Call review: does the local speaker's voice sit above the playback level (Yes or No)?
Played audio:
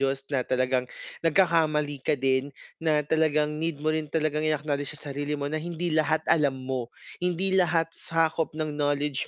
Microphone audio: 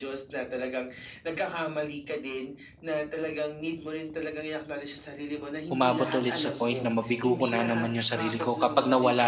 Yes